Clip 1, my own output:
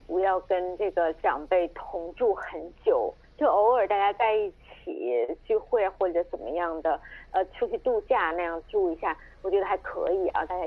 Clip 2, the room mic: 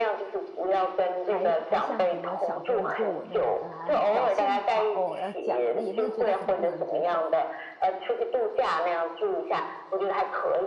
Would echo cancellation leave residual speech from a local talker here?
Yes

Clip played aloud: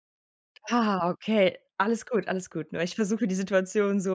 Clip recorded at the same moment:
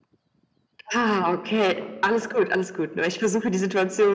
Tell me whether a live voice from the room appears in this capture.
No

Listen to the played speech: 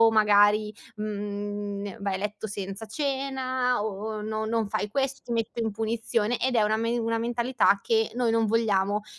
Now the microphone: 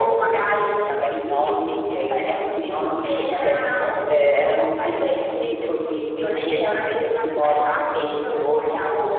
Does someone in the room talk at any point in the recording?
Yes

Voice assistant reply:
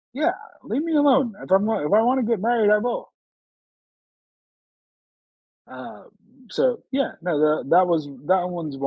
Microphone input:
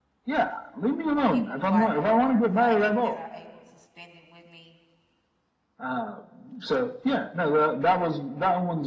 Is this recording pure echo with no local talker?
No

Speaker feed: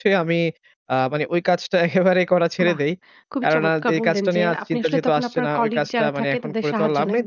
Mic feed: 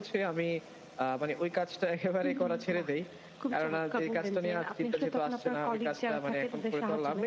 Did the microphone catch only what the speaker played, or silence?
No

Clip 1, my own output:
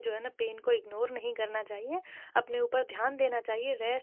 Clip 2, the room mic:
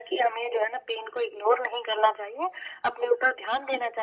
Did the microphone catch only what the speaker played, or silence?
Yes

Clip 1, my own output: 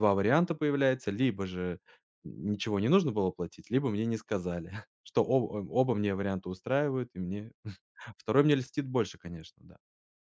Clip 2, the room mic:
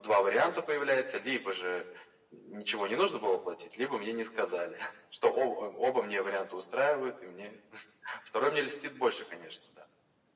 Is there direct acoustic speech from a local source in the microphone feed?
No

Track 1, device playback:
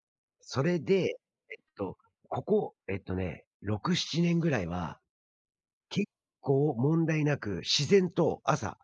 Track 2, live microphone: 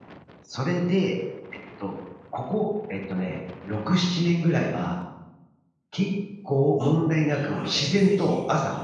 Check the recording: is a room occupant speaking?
Yes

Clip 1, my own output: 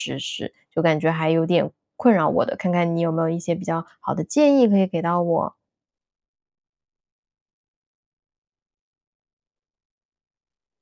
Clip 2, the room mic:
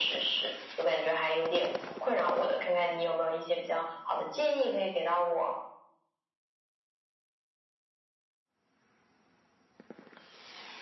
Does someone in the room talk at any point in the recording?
No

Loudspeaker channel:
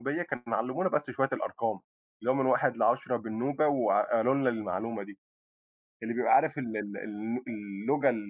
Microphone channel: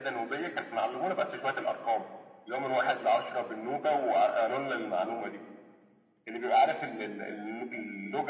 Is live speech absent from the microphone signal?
Yes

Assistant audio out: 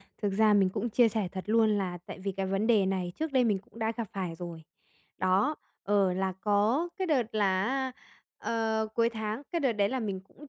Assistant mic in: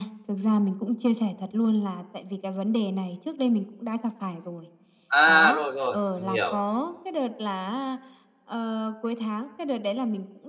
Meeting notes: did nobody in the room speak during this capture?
No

